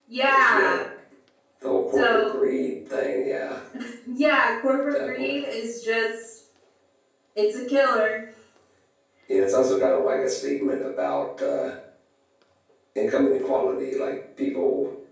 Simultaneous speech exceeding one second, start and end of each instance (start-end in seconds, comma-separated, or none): none